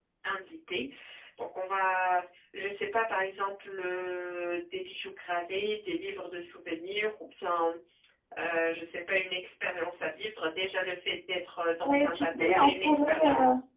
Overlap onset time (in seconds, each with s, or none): 11.8 s